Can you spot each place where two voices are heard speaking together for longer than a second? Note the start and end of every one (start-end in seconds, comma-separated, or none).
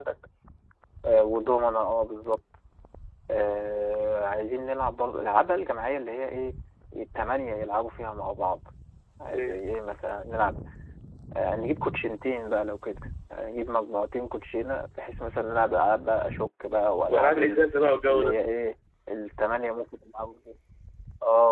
none